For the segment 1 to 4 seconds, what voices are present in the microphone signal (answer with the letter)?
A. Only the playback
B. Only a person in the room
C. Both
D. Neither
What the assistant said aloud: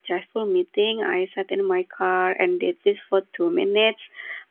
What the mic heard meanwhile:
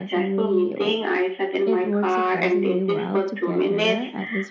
C